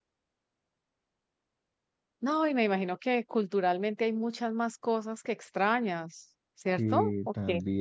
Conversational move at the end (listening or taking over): taking over